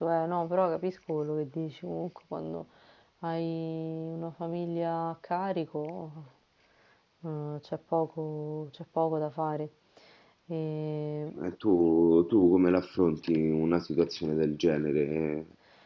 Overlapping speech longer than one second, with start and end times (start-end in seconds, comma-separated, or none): none